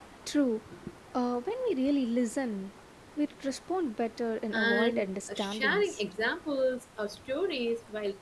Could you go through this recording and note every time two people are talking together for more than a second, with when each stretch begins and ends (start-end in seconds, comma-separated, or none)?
4.5-6.0